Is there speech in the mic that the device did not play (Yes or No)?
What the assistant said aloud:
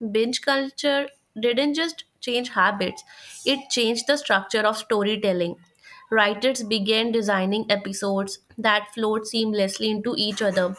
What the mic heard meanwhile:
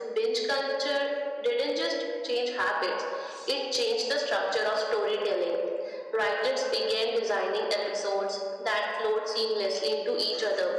No